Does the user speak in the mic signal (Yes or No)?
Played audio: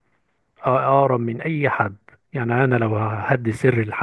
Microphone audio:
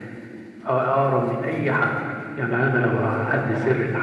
Yes